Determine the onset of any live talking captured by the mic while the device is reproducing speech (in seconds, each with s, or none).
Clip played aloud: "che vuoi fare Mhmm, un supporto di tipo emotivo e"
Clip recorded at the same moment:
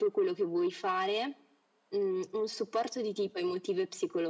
none